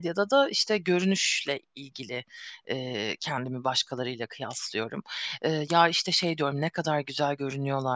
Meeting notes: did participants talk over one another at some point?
No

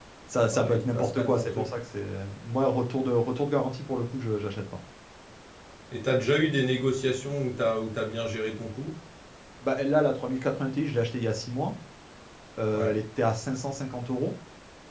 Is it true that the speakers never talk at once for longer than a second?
No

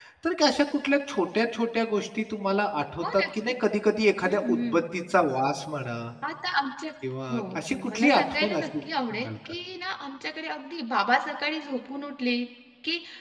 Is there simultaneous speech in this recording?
Yes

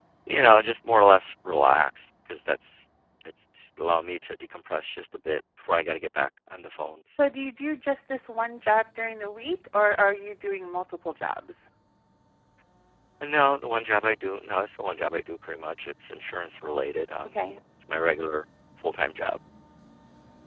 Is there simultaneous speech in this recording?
No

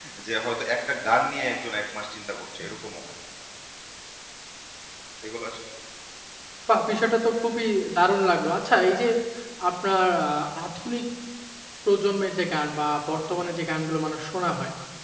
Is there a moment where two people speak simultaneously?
No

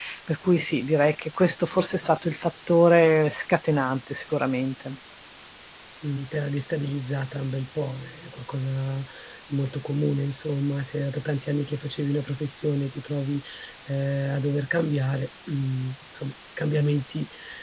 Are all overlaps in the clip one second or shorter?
Yes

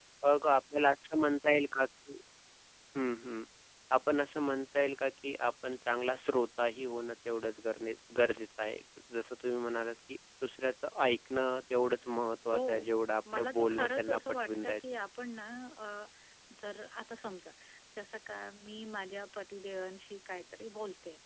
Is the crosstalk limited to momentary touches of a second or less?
No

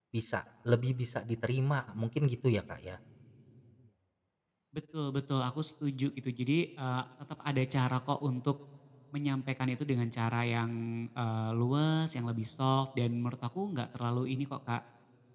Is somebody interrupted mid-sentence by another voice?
No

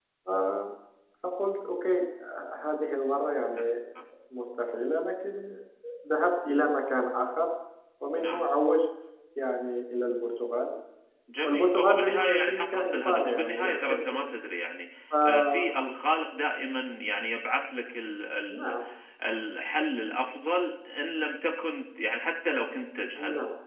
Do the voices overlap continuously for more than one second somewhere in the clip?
Yes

